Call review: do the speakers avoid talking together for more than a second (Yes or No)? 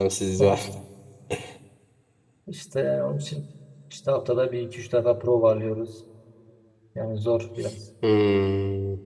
Yes